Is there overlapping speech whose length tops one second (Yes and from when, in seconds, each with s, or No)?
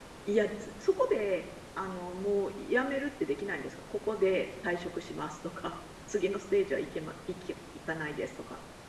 No